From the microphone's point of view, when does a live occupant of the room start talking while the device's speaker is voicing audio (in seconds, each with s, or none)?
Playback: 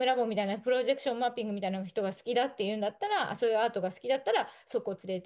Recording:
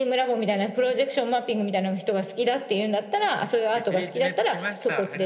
3.7 s